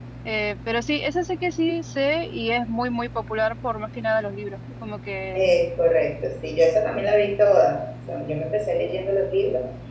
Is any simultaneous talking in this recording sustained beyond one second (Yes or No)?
No